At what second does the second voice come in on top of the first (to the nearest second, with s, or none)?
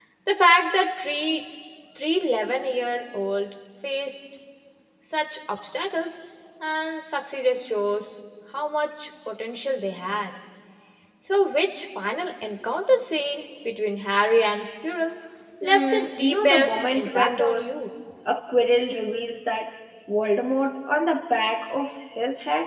16 s